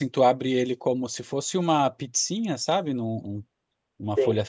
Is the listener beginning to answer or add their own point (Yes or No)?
No